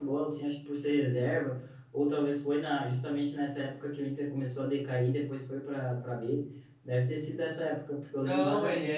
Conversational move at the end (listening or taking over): taking over